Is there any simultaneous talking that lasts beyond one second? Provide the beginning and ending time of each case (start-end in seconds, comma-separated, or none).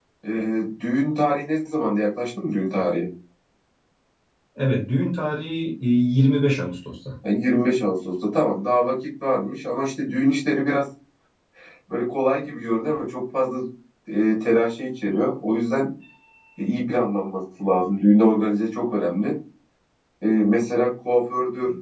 none